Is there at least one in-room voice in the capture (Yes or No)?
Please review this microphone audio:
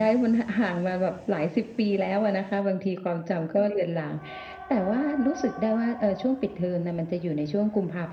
No